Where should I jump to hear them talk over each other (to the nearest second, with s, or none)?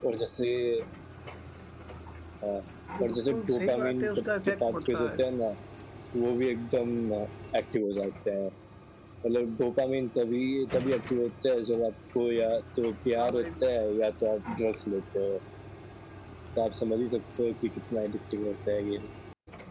3 s